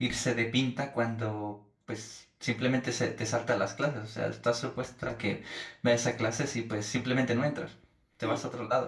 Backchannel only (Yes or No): No